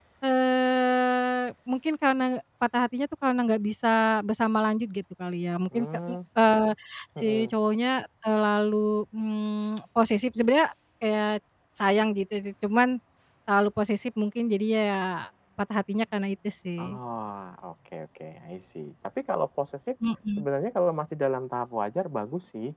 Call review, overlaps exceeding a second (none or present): none